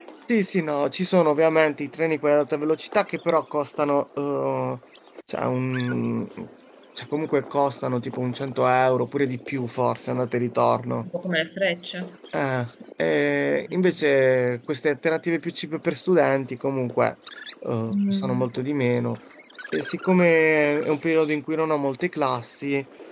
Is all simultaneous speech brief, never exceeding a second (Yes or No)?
Yes